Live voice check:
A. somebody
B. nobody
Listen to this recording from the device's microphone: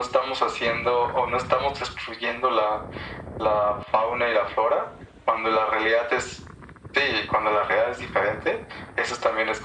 B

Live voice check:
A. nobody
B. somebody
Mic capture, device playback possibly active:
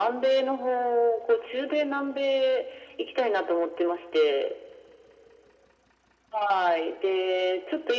A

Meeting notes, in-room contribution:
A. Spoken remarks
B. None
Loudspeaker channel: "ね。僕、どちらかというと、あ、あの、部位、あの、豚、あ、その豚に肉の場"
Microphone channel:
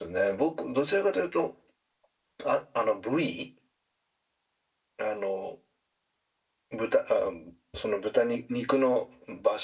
B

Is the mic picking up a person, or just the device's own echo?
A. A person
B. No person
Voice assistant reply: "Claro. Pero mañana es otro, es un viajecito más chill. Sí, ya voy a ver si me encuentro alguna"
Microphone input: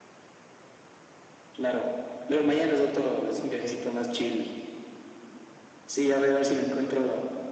B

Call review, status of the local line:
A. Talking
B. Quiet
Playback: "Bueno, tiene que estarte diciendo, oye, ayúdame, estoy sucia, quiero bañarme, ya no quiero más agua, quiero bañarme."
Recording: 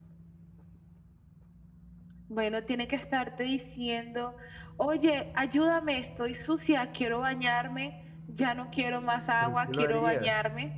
A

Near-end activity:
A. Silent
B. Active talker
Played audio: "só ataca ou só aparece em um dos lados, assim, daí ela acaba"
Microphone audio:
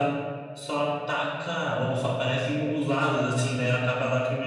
A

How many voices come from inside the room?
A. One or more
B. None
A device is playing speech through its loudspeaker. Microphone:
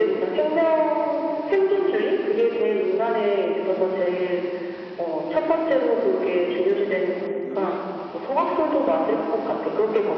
A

